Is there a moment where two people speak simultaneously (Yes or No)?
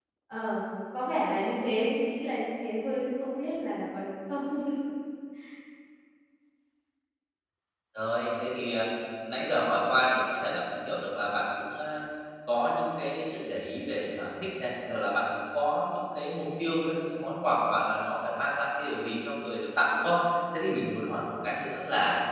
No